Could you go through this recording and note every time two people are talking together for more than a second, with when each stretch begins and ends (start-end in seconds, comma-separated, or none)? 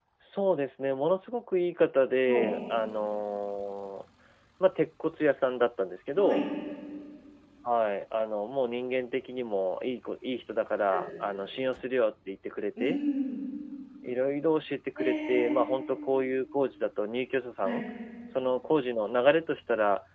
none